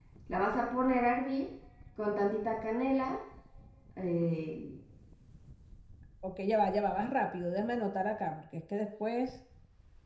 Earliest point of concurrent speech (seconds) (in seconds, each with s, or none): none